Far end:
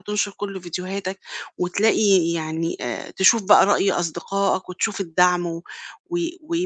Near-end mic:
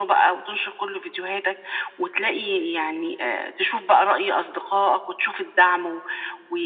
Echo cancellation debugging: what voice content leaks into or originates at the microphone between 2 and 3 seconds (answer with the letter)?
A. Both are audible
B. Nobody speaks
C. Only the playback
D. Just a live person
C